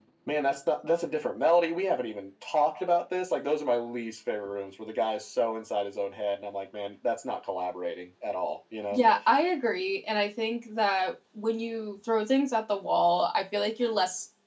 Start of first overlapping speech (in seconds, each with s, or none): none